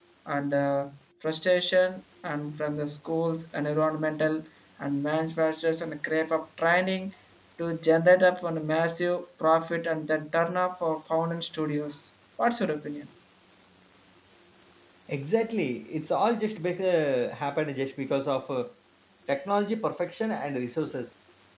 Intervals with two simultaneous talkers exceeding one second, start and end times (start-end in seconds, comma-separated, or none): none